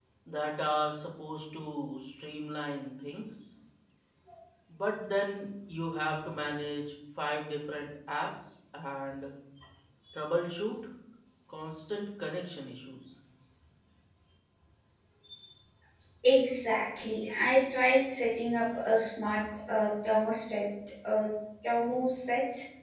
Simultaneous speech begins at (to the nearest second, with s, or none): none